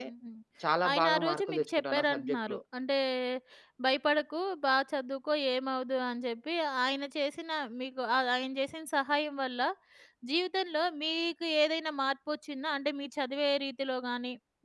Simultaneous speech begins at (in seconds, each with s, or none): 0.9 s